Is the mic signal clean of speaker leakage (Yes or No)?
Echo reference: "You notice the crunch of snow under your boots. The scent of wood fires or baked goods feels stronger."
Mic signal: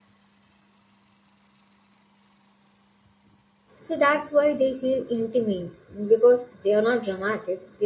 Yes